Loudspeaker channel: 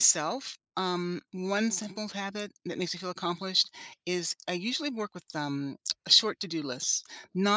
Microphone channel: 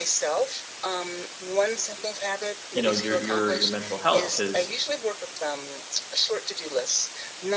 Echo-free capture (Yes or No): No